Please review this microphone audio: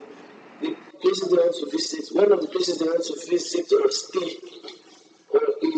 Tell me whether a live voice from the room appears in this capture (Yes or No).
No